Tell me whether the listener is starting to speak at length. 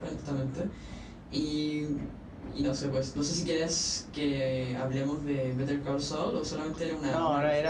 Yes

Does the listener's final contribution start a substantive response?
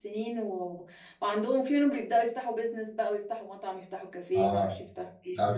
Yes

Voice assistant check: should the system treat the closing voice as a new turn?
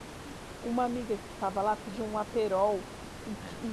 No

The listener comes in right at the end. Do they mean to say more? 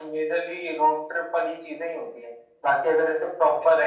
No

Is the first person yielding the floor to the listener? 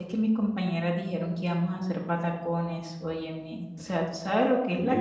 Yes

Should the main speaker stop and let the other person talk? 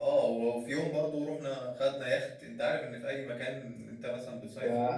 Yes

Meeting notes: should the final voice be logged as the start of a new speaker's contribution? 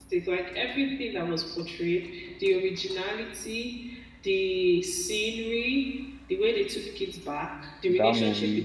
No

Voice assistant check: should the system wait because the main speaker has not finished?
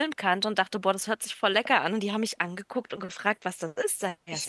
No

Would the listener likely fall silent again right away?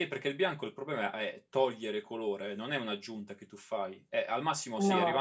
Yes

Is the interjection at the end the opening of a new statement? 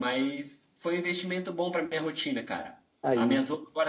No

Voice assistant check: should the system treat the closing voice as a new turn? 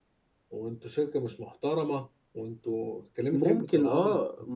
Yes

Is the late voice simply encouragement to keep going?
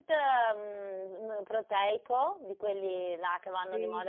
Yes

